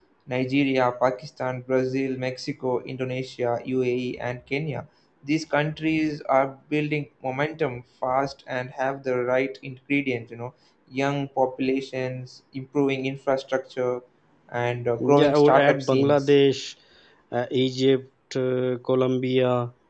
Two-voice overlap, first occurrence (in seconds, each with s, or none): 15.0 s